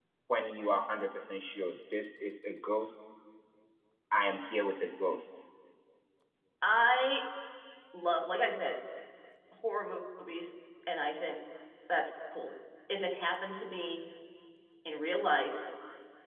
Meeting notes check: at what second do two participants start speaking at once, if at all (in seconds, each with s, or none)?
none